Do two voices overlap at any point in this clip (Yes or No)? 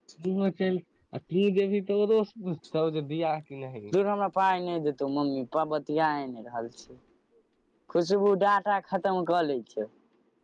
No